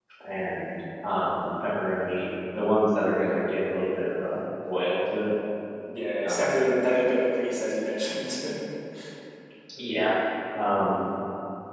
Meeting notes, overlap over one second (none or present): none